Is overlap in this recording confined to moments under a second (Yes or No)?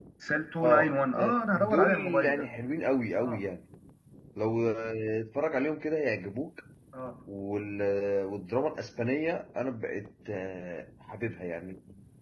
No